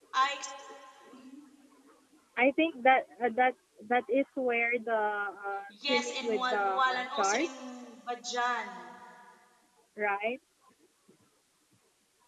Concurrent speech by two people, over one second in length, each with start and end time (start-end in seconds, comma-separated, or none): 5.7-7.8